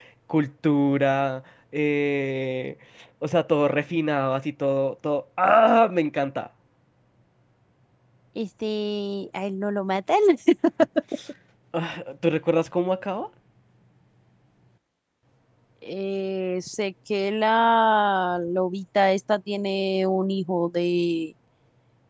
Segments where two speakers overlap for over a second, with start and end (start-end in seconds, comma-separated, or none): none